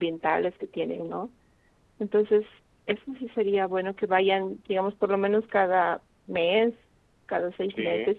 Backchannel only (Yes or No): Yes